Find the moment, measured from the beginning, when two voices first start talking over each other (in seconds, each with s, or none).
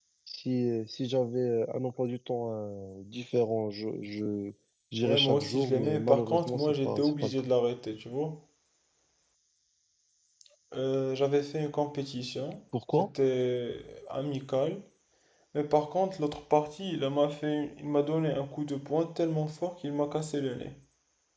5.0 s